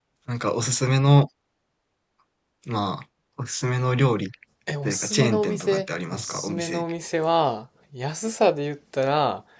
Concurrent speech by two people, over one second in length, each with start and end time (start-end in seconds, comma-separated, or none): 4.8-6.8